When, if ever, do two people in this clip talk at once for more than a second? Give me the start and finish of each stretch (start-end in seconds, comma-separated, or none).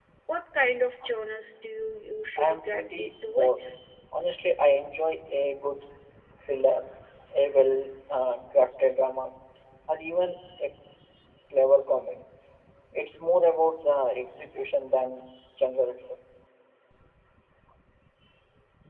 2.4-3.6